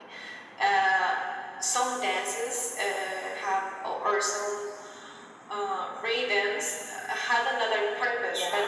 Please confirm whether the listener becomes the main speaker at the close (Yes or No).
No